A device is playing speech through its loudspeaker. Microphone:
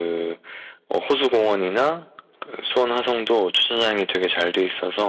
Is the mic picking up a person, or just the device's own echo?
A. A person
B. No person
B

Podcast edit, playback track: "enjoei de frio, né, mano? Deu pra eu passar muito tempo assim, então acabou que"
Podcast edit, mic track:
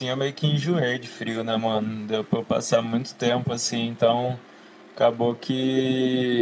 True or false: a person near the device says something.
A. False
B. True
A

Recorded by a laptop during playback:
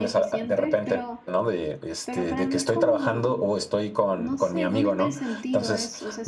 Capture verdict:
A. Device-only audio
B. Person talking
B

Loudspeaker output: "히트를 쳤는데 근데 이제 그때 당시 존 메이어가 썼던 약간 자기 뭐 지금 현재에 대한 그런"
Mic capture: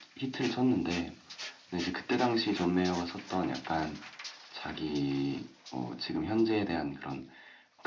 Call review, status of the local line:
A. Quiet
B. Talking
A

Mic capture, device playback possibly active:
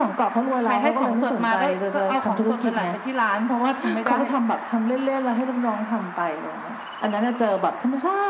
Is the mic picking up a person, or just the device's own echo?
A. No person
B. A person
B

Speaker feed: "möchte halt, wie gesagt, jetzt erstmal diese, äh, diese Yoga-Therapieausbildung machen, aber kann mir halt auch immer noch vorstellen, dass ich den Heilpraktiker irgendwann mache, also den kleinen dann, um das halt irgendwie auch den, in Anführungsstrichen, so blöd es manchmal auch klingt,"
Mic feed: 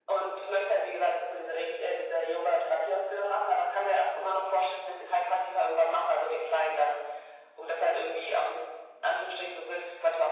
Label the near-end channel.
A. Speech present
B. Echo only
B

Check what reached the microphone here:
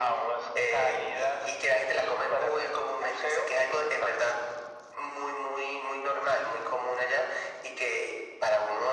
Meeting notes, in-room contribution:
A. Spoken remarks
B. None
B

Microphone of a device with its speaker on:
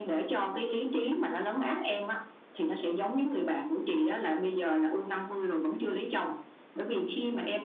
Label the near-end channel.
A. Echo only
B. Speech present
A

